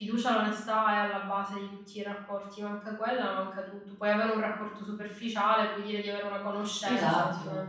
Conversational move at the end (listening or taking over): taking over